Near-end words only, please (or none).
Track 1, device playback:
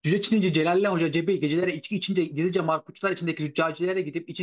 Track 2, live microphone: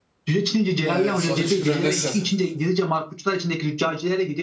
Evet, so 3-1 öndesin.